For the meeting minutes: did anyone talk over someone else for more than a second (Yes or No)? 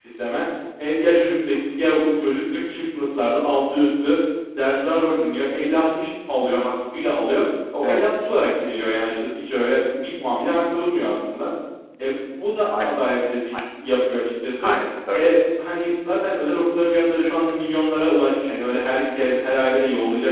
No